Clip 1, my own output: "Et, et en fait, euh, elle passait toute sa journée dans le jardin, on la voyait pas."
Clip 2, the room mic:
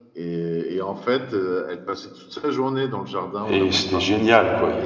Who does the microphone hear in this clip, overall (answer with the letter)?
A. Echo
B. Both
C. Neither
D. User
B